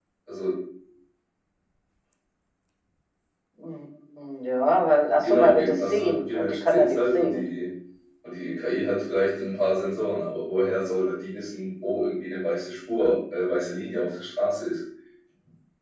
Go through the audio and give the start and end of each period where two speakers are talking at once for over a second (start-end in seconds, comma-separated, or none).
5.2-7.4